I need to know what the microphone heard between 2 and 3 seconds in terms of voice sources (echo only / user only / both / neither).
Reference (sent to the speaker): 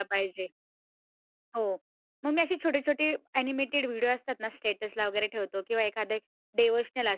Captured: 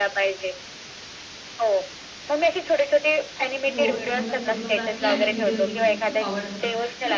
echo only